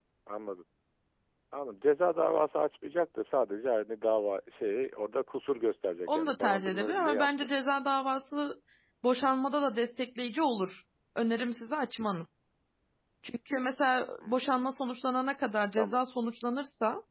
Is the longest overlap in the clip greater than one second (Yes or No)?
Yes